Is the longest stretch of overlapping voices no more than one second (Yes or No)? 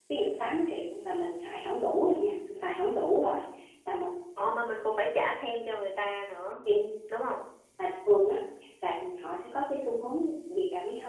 Yes